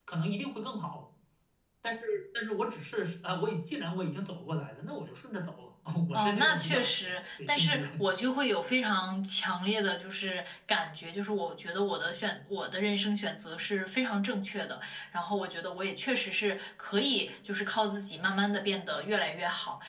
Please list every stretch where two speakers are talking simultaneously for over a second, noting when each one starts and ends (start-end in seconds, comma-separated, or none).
6.1-8.0